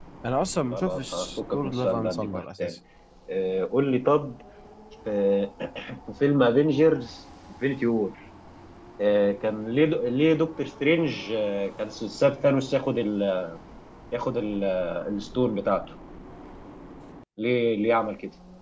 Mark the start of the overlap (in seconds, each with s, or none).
0.7 s